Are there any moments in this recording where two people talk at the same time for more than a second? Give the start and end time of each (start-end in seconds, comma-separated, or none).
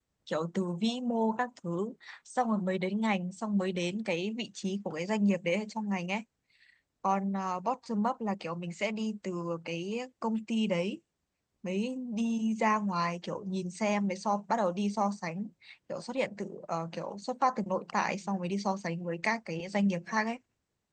none